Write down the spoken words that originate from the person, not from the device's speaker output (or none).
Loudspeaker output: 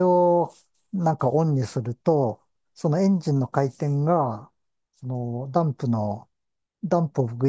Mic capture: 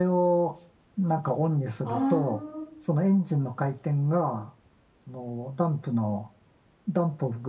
ああ、